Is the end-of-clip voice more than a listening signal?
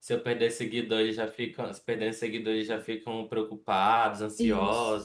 Yes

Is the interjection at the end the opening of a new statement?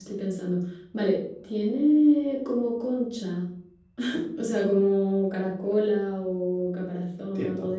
Yes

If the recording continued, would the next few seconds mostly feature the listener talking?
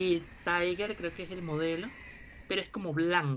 No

